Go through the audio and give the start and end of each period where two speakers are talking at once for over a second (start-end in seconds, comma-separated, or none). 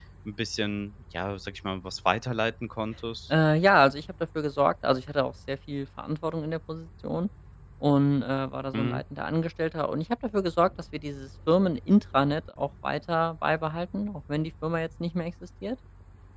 none